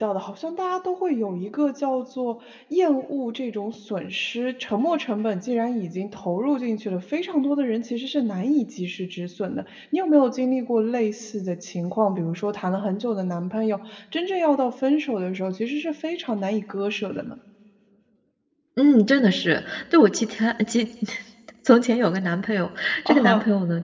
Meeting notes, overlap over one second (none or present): none